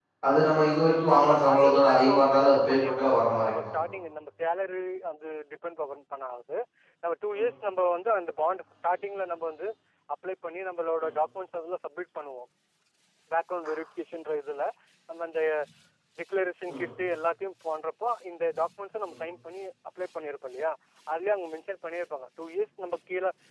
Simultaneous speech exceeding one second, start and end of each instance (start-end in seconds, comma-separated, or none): 1.2-3.8